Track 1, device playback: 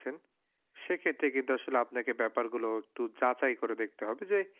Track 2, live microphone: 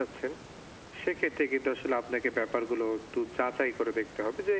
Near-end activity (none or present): none